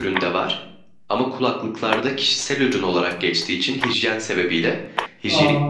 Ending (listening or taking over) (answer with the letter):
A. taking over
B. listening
B